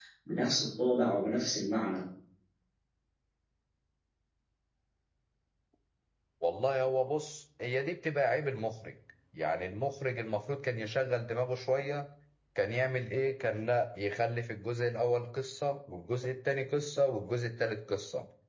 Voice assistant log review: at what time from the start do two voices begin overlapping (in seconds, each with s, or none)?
none